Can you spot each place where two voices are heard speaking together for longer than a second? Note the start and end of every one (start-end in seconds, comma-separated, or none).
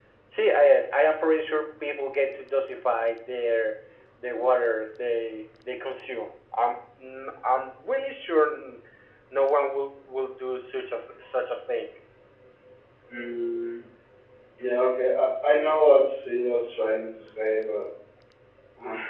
none